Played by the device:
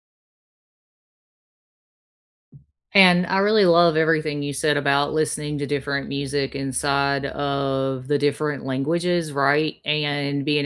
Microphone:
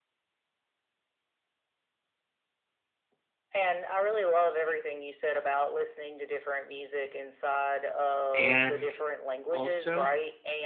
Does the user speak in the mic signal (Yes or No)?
Yes